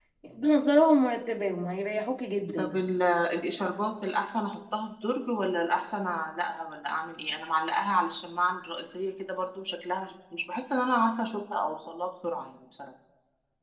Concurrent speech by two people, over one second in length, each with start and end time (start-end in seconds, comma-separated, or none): none